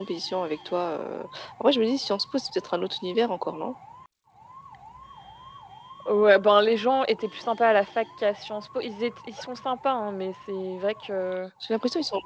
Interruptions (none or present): none